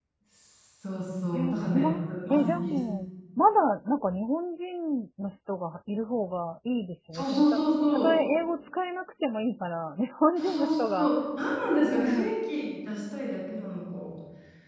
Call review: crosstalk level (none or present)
present